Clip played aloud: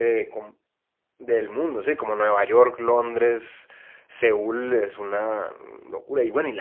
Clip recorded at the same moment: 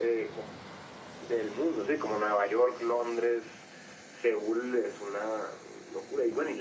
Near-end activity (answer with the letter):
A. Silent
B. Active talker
A